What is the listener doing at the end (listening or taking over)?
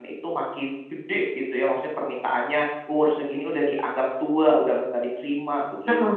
taking over